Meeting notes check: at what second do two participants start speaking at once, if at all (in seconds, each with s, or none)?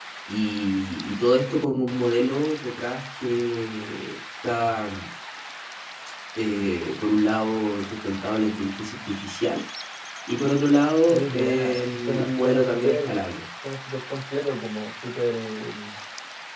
11.1 s